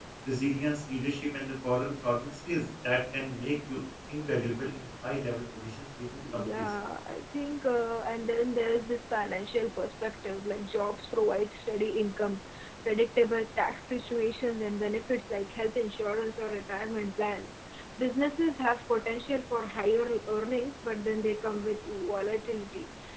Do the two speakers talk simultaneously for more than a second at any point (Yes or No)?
No